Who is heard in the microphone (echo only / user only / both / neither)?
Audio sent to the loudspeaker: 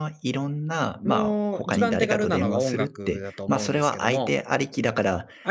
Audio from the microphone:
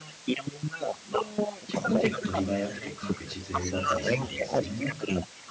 both